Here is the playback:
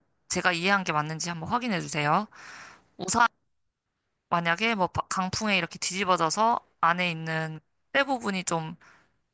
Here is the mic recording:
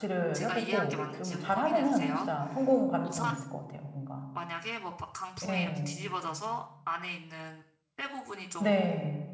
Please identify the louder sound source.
user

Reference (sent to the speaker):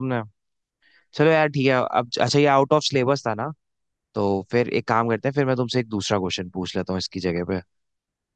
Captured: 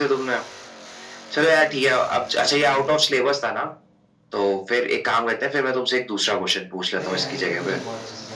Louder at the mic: echo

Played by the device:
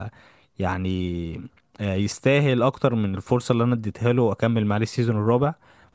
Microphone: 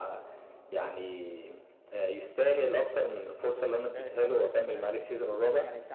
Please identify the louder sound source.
echo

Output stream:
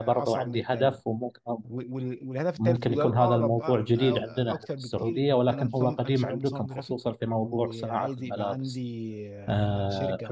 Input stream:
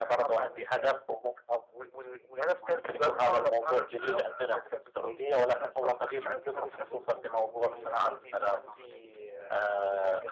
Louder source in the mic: echo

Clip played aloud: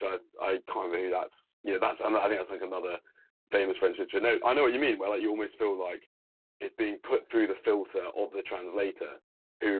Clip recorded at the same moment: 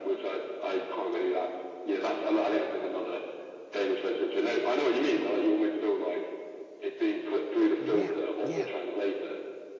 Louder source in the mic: echo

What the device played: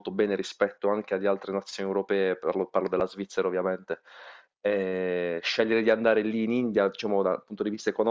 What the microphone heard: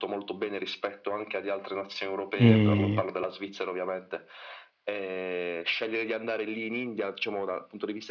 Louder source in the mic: user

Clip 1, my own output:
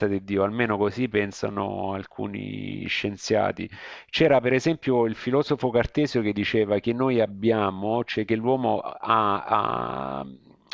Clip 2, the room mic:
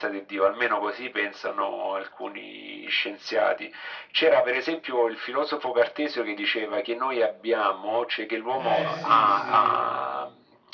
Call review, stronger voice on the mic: echo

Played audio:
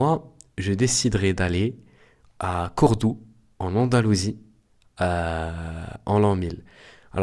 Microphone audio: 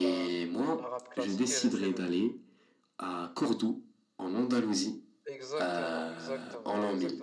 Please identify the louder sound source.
echo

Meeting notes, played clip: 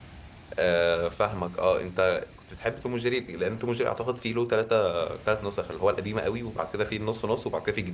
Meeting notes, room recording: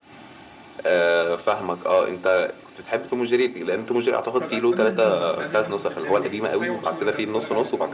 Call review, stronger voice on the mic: echo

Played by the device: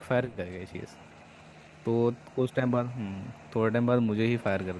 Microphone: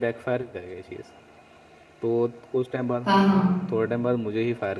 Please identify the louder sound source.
user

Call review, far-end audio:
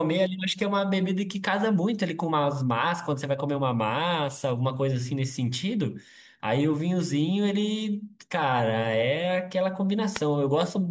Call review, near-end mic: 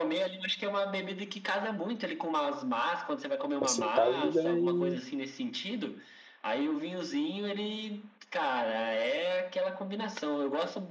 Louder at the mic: user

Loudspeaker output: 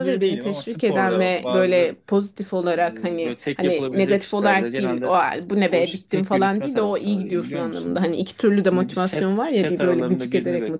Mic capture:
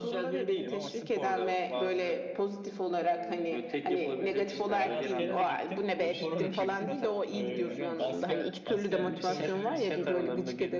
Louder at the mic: echo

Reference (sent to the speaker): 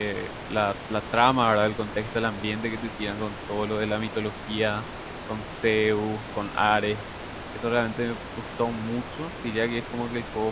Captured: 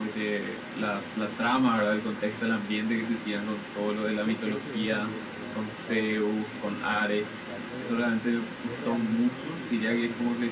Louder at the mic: echo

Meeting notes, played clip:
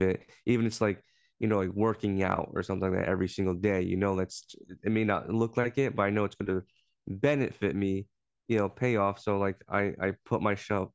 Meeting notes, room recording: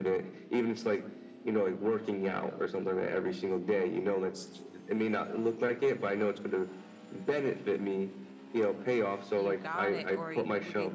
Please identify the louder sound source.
echo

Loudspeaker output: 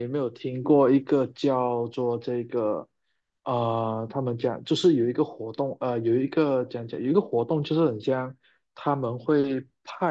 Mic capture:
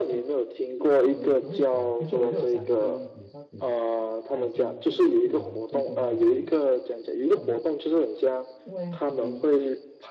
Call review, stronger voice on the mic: echo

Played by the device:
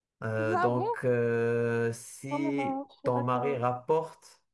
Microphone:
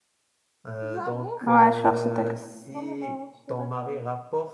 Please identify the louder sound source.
user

